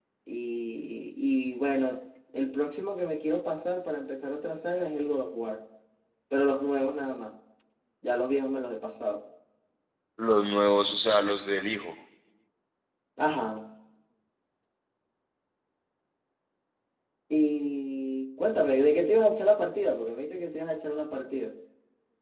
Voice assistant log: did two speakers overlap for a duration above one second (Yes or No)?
No